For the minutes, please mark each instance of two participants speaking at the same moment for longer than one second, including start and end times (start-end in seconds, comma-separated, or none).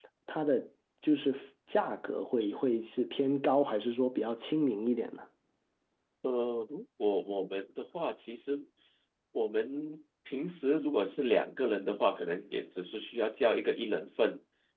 none